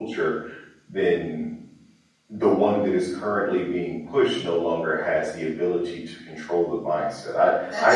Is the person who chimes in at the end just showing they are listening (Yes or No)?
Yes